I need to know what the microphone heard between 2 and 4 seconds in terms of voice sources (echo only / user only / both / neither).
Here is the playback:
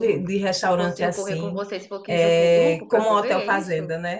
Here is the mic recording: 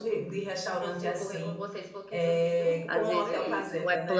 both